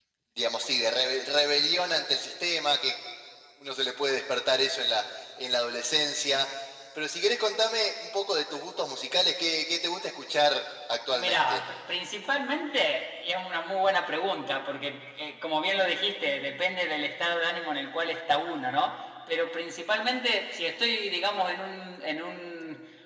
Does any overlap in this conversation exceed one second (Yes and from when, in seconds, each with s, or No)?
No